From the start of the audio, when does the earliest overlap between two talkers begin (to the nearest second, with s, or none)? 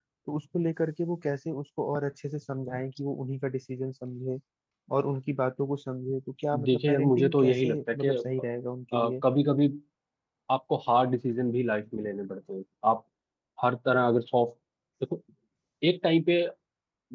7 s